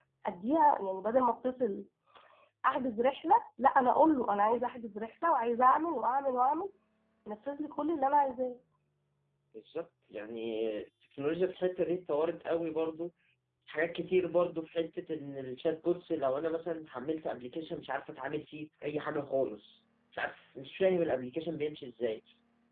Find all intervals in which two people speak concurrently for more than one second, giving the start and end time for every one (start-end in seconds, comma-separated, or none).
none